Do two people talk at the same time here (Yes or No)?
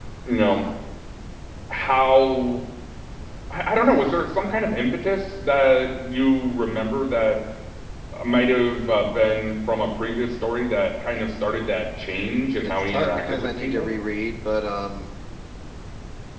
Yes